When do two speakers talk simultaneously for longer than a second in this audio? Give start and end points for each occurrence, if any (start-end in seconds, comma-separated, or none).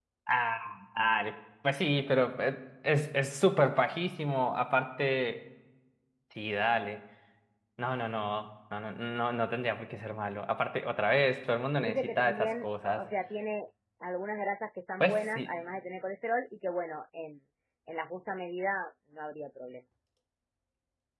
11.8-13.0